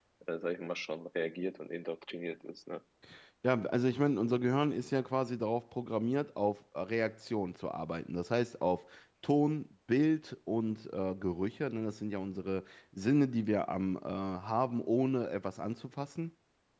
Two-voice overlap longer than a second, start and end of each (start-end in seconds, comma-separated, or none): none